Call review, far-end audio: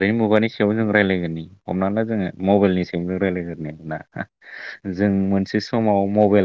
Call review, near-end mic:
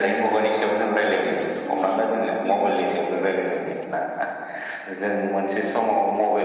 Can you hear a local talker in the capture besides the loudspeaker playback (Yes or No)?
Yes